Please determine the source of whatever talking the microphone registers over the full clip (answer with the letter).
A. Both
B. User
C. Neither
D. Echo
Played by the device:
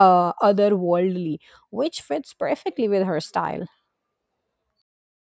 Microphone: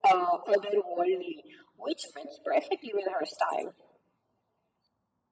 D